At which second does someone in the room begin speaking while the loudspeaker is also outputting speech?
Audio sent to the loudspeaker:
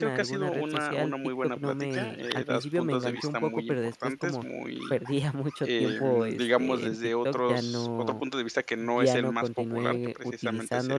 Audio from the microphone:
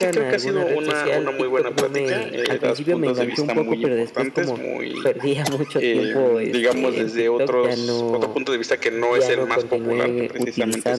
none

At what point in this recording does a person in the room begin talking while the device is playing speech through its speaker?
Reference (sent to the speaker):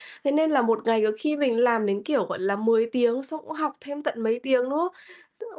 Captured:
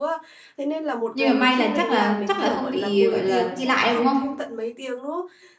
1.1 s

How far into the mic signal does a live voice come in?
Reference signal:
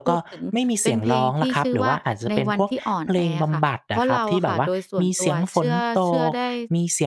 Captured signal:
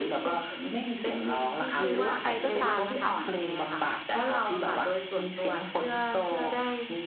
1.8 s

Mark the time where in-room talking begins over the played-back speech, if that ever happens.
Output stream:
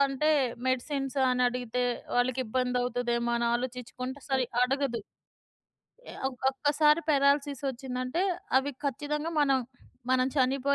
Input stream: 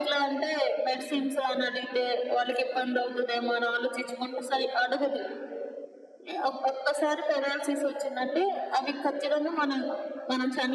none

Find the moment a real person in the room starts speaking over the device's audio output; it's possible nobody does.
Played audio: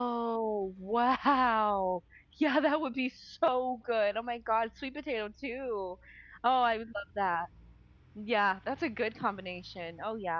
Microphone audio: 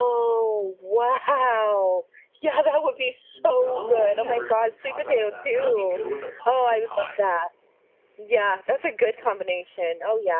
3.3 s

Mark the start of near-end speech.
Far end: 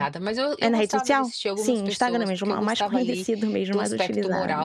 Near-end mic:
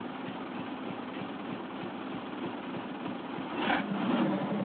none

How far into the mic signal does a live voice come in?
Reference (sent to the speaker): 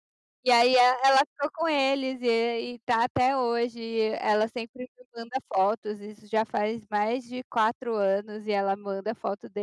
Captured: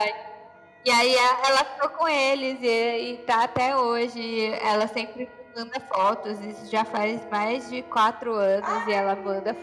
8.6 s

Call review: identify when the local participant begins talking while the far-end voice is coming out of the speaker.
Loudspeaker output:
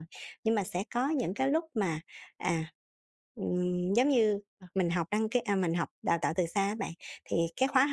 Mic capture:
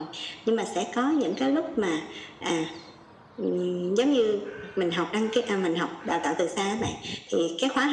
none

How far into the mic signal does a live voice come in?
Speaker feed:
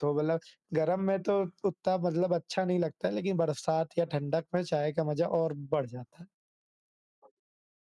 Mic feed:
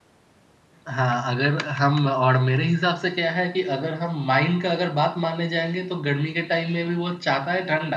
0.9 s

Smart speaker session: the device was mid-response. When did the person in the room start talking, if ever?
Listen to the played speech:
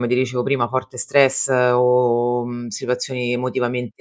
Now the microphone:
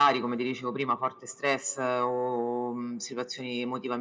none

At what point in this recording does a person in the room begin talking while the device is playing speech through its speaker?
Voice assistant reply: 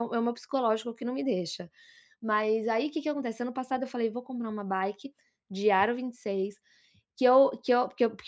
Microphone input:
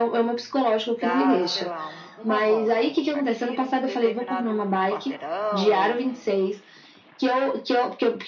0.9 s

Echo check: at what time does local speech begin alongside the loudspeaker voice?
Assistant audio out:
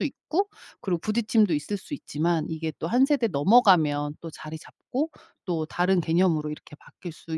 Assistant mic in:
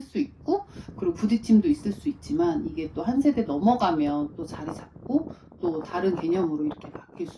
none

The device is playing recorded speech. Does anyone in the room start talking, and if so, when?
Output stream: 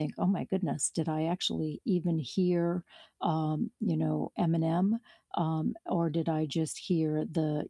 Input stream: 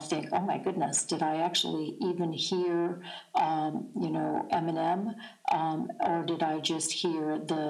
none

